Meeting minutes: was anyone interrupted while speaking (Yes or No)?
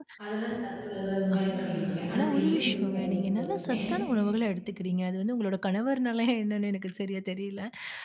Yes